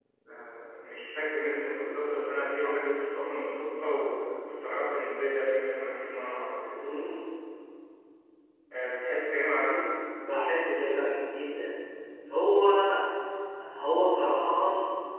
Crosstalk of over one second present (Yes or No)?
No